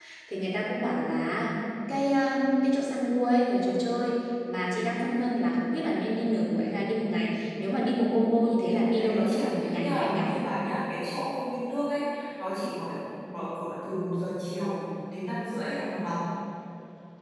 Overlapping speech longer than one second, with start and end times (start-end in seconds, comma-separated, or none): 8.7-10.2